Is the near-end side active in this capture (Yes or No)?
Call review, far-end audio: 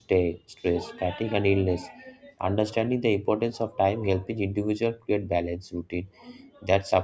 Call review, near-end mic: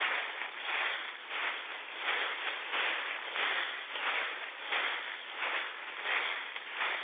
No